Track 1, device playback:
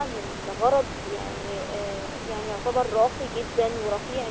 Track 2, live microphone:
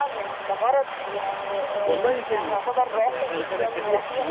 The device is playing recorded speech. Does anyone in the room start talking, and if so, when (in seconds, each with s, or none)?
1.8 s